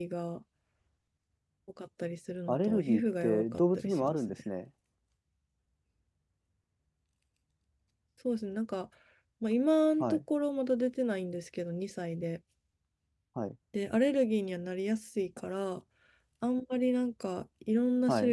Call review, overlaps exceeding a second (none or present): present